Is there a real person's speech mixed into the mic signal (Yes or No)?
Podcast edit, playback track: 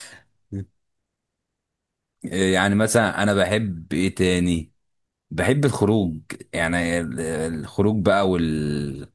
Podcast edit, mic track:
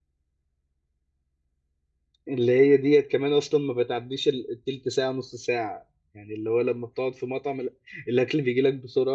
Yes